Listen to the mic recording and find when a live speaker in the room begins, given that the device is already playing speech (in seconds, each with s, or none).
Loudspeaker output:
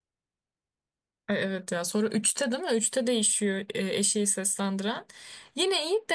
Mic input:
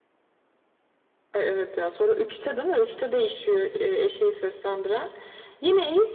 none